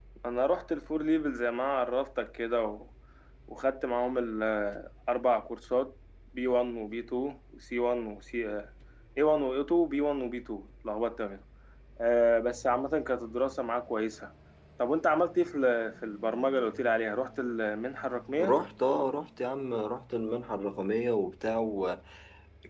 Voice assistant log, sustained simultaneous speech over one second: none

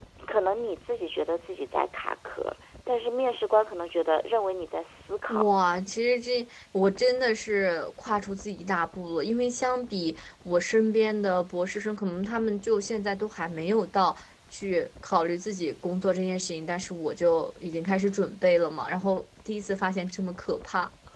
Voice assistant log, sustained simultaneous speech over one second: none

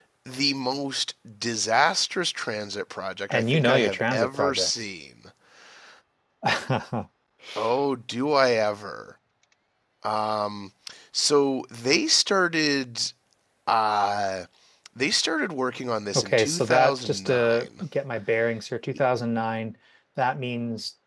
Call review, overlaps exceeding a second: present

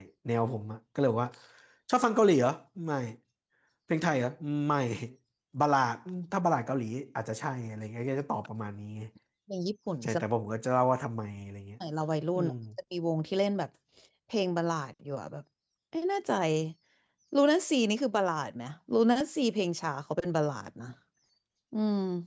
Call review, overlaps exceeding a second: none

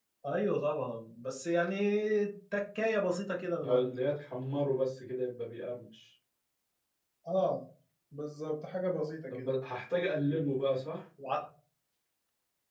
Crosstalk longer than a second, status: none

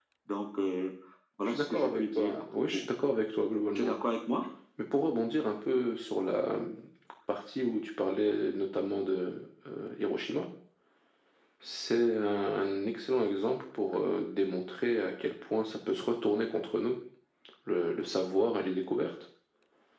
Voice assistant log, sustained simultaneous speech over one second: present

